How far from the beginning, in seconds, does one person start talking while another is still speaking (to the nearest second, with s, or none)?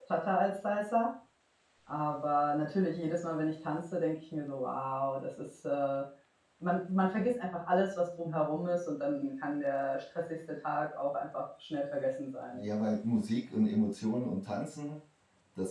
none